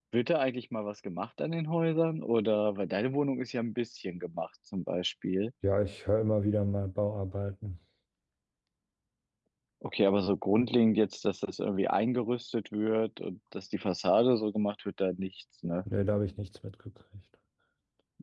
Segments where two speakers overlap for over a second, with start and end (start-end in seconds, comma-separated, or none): none